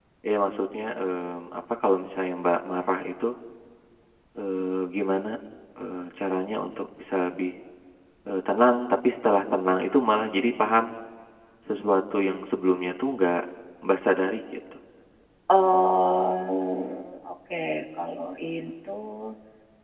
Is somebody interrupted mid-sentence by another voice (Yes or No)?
No